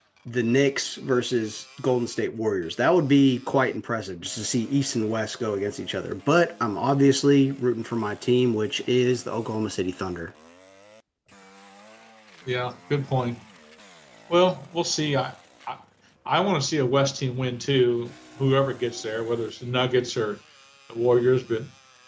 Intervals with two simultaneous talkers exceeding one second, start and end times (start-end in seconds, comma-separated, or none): none